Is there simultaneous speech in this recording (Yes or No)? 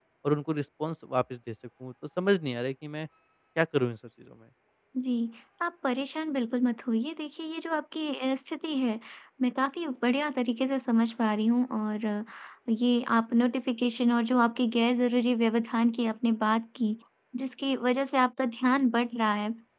No